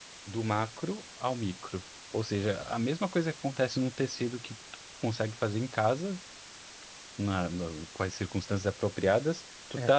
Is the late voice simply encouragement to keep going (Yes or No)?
Yes